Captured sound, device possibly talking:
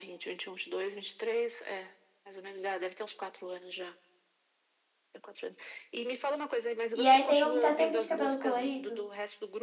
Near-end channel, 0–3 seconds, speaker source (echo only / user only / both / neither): echo only